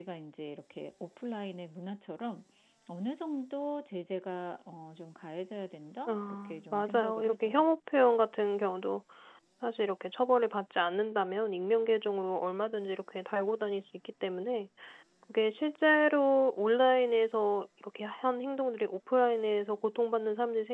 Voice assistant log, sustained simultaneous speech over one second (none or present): present